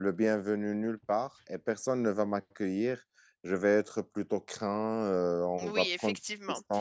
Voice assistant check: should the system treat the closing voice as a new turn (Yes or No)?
Yes